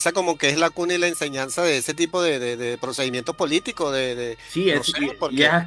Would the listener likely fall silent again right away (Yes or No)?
No